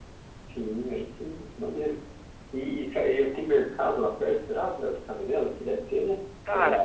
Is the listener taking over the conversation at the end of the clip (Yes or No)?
Yes